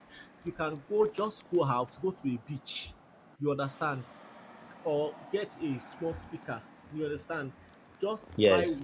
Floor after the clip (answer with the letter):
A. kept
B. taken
A